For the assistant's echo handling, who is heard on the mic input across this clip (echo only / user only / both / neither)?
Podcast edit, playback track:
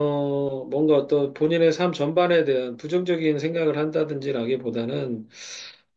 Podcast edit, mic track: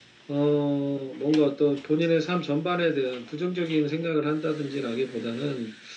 echo only